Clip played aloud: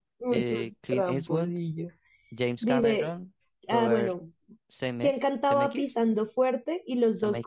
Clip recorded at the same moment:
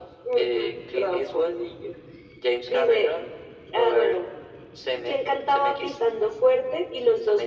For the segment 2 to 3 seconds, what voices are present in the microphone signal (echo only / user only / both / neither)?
echo only